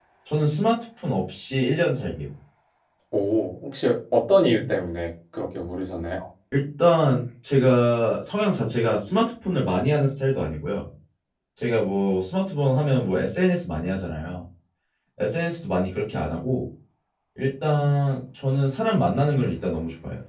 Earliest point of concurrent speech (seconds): none

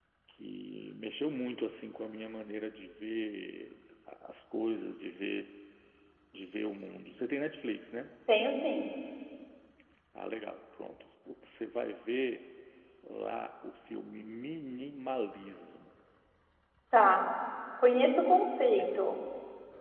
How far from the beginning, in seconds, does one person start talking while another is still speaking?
none

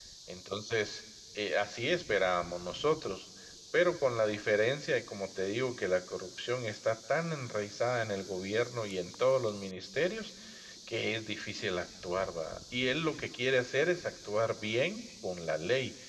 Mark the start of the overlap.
none

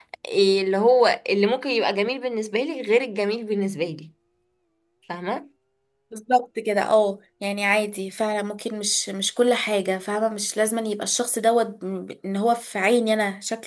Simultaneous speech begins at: none

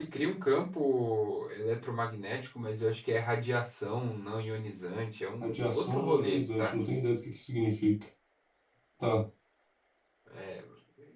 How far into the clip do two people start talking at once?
5 s

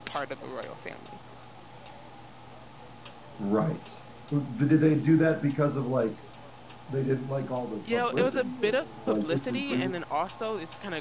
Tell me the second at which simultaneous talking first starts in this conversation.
8 s

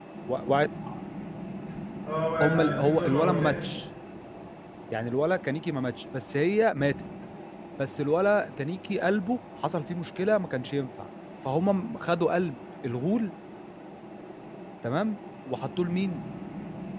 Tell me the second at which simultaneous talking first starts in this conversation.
2 s

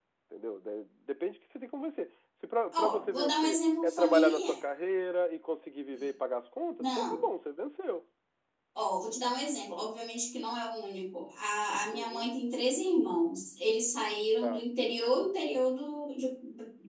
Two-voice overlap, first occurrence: 3 s

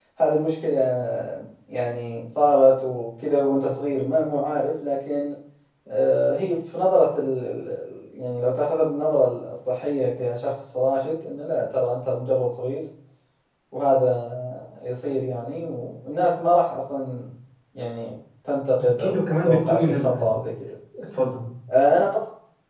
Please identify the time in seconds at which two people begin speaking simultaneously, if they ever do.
19 s

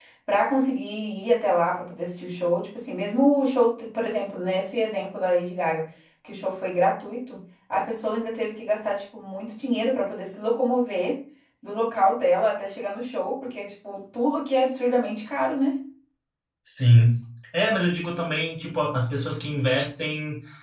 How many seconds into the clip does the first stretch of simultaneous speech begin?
none

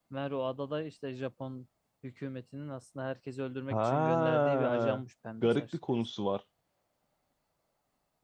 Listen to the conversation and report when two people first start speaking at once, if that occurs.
4 s

